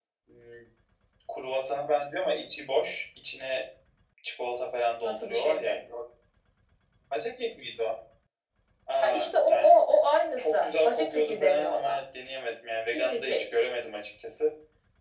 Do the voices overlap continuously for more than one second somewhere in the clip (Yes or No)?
Yes